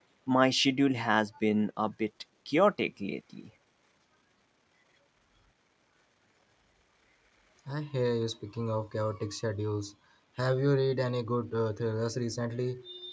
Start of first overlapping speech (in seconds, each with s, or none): none